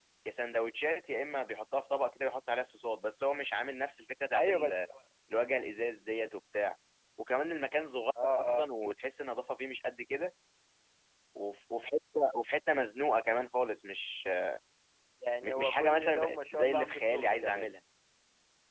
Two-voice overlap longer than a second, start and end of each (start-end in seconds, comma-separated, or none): 15.4-17.7